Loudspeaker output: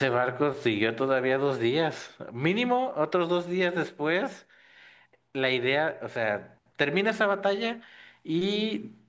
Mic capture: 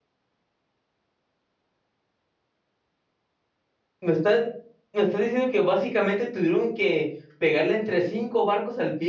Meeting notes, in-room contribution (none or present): present